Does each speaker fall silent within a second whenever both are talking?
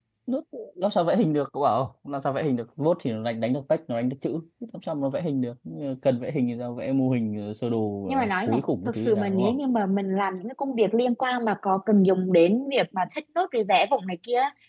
No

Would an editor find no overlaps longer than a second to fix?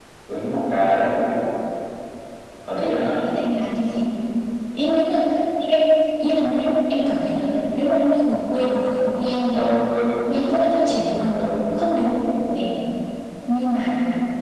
Yes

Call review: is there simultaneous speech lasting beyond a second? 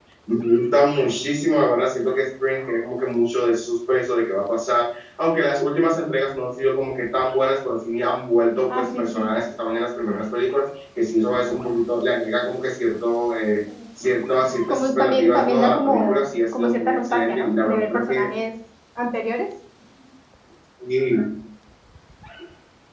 Yes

